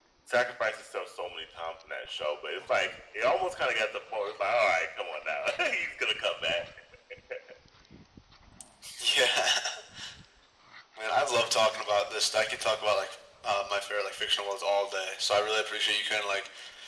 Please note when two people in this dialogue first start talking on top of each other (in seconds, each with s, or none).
none